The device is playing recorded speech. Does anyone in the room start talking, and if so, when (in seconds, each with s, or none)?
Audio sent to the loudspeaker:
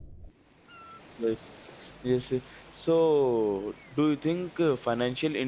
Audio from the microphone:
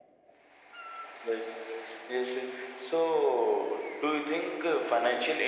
none